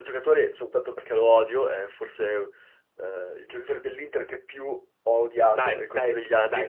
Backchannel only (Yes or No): No